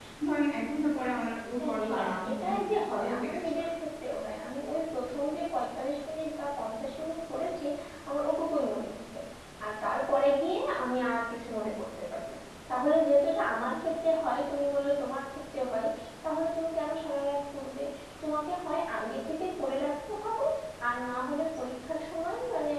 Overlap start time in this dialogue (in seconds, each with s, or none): 1.6 s